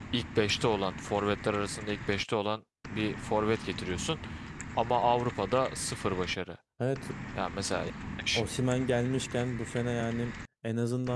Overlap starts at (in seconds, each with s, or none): none